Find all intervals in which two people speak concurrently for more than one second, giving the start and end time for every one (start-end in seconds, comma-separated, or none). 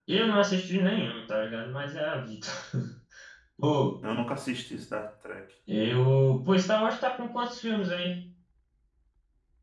none